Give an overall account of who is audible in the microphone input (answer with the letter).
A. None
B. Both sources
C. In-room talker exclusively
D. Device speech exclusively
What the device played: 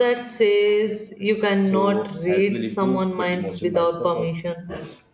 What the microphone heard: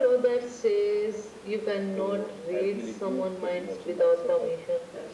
D